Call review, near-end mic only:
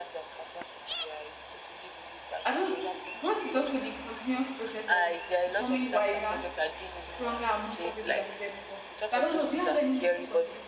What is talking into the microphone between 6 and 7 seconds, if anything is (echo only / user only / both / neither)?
both